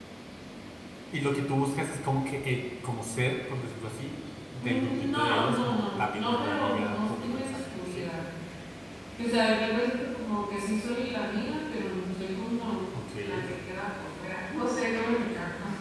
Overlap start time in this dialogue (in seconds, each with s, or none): 4.6 s